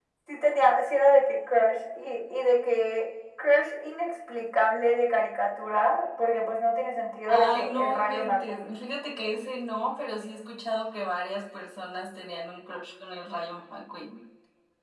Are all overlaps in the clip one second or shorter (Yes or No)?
No